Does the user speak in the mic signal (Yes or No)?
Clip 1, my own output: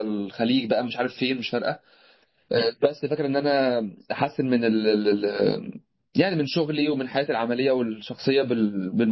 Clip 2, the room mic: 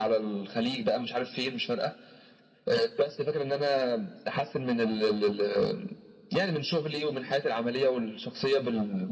No